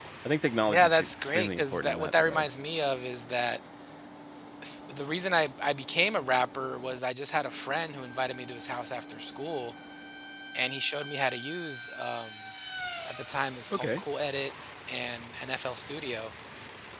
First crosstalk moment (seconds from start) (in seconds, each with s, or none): 0.7 s